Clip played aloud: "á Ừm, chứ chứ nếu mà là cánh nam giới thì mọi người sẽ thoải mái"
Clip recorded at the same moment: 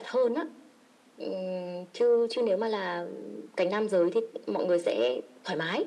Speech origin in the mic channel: echo only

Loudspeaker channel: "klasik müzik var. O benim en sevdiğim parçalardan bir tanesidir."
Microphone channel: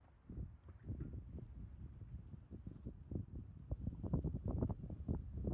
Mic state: neither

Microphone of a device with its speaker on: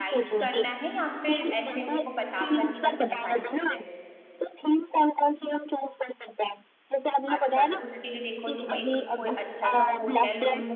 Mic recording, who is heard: both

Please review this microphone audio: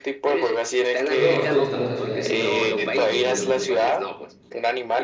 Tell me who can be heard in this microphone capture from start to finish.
both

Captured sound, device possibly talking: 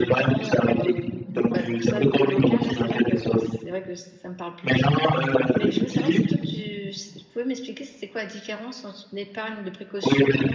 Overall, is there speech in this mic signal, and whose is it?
both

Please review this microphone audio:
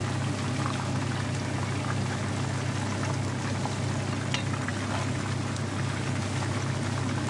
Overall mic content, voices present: neither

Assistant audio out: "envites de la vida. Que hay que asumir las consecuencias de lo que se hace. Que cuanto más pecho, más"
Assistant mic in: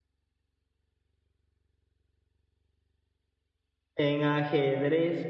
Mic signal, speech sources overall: user only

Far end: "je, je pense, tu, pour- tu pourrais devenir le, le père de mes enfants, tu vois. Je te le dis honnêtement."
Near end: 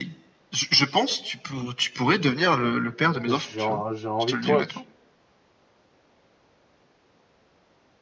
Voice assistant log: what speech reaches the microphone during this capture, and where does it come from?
both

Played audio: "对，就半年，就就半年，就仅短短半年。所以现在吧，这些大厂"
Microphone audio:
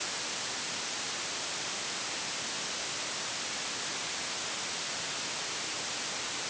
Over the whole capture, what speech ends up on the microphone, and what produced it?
neither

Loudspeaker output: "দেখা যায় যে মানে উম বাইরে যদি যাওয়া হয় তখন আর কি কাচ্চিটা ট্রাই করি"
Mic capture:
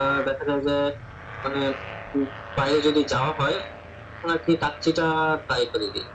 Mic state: echo only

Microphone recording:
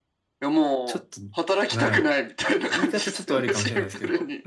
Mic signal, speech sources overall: both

